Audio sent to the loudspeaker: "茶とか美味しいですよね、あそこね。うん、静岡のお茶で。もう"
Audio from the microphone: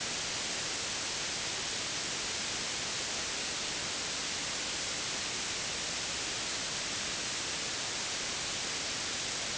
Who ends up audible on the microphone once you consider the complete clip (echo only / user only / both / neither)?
neither